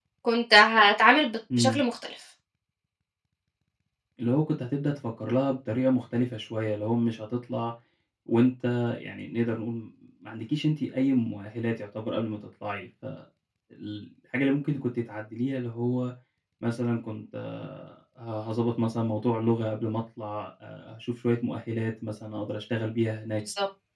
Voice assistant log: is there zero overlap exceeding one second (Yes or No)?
Yes